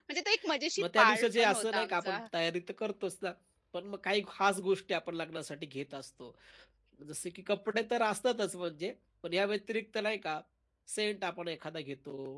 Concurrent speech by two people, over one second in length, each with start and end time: 0.8-2.2

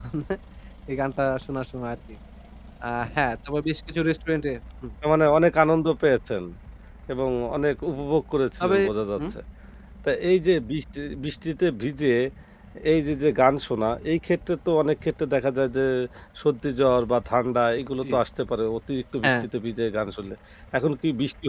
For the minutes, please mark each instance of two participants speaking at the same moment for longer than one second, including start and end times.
none

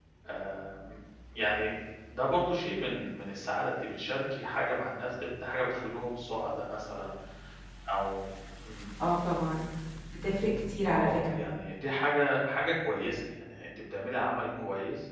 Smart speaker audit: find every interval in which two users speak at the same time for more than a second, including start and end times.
none

